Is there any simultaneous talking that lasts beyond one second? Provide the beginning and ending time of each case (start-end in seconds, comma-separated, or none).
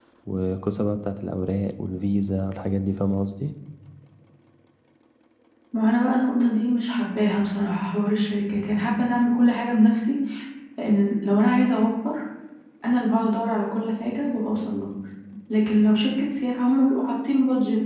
none